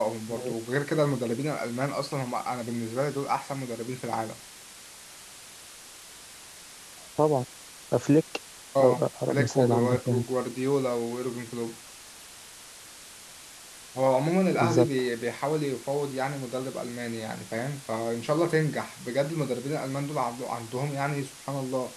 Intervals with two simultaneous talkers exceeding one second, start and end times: 8.8-10.2

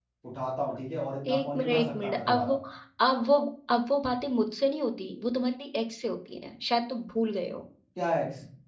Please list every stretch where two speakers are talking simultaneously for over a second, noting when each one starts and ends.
1.3-2.5

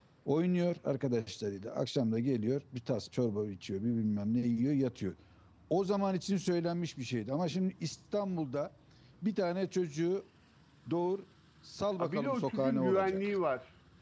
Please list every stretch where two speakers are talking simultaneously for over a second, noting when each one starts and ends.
12.0-13.3

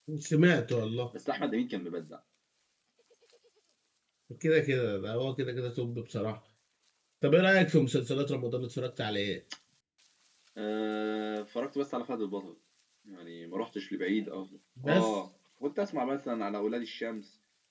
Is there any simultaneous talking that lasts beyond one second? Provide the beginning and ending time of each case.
none

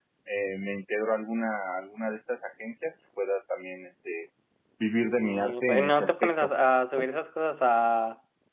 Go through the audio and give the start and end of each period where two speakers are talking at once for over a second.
5.0-6.3

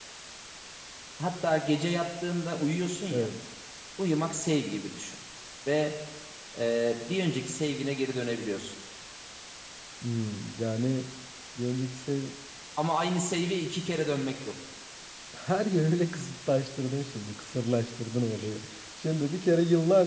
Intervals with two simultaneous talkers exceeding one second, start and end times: none

